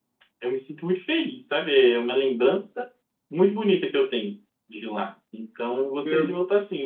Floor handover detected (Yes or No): No